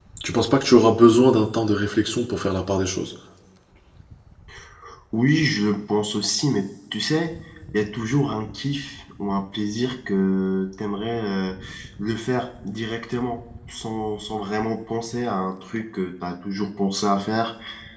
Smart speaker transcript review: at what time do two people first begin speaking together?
none

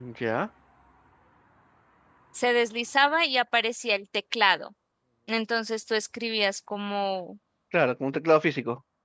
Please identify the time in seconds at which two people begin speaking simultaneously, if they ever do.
none

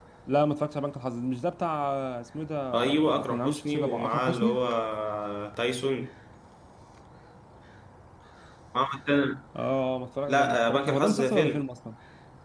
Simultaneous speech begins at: 2.7 s

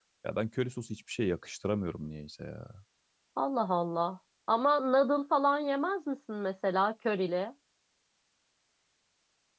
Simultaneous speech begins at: none

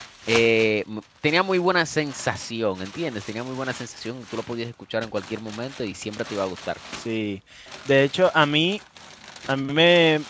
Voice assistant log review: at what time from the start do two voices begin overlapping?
none

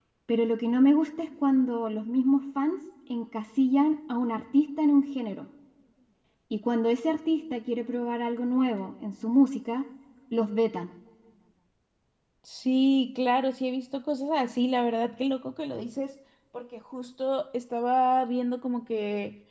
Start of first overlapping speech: none

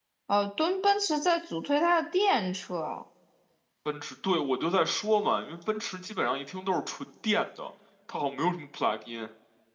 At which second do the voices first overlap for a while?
none

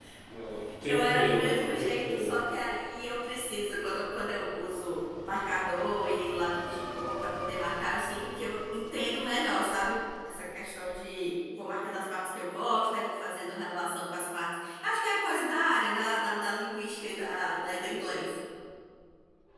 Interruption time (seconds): 0.9 s

